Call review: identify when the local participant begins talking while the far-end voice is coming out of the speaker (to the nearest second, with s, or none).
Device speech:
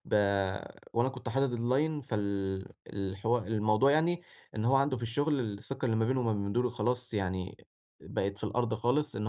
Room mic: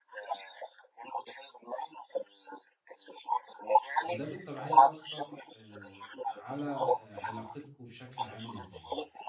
4 s